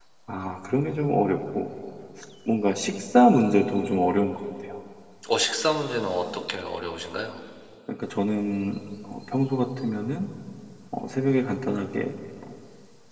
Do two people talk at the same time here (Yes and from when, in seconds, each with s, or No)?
No